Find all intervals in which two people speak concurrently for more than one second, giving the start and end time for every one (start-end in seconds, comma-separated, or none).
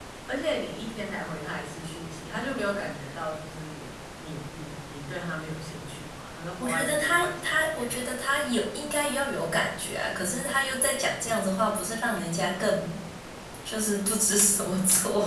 6.6-8.4